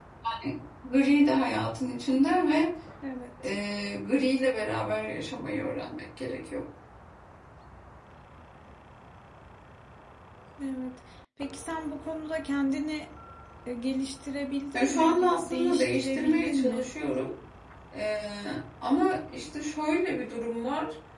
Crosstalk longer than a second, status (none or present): present